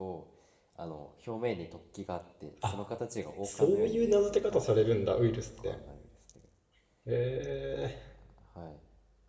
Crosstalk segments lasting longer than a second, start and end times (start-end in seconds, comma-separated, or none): 3.4-4.7